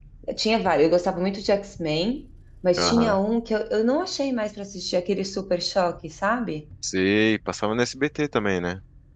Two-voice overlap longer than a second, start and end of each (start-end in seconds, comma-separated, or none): none